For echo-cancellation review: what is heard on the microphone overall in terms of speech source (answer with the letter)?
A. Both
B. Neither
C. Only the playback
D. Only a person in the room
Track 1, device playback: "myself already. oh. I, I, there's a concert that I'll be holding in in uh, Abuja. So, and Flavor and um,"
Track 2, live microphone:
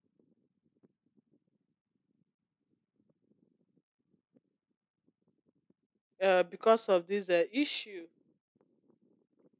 D